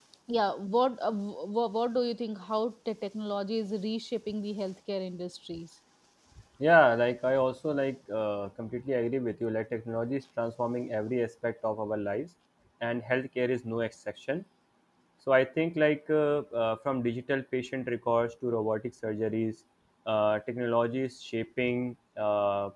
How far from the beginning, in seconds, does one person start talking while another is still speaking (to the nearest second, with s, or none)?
none